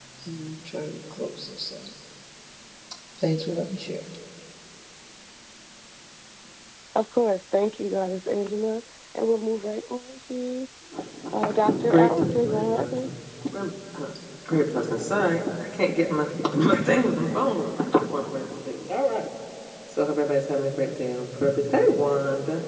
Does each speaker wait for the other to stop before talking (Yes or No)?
No